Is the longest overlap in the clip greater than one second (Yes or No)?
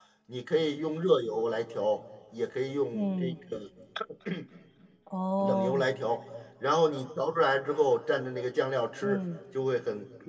No